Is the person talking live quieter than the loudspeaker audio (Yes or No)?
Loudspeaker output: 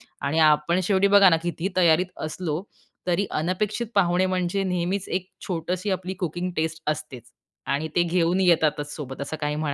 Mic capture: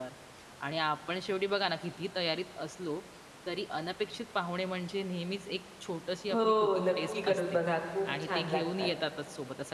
No